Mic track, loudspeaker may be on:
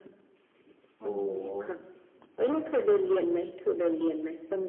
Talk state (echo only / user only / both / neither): both